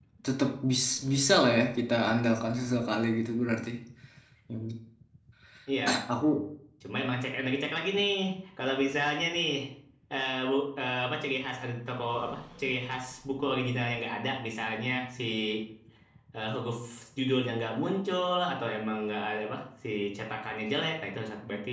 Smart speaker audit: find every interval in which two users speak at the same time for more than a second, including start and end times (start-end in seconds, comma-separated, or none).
none